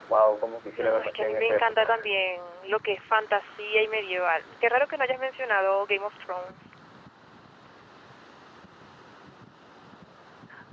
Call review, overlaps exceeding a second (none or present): present